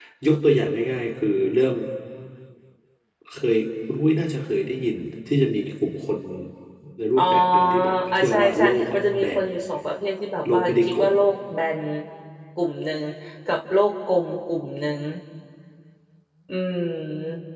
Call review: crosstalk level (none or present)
present